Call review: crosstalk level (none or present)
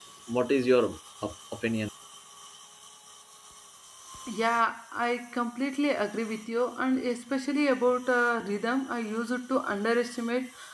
none